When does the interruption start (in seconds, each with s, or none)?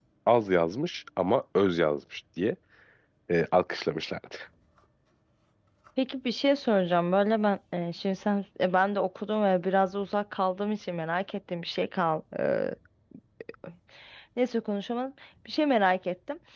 none